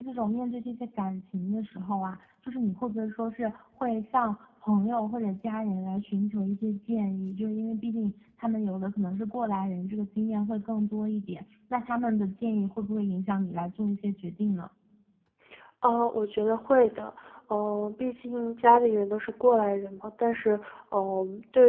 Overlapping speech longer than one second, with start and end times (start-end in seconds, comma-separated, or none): none